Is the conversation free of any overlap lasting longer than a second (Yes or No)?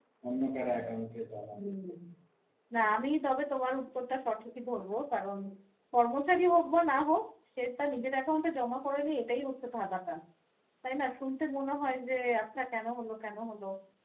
Yes